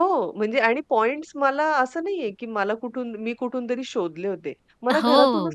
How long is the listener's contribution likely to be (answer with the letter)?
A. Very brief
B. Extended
A